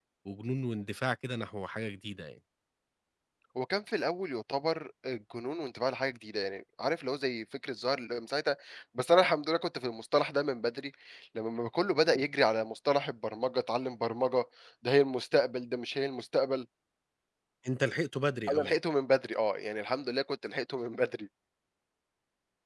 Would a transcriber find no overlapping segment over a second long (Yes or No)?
Yes